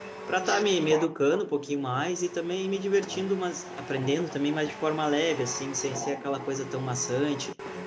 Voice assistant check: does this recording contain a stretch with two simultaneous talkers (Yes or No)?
No